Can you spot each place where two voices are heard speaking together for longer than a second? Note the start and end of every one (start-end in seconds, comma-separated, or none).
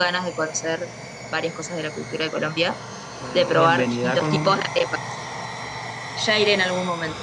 3.3-4.6